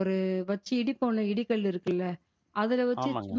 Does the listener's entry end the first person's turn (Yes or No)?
No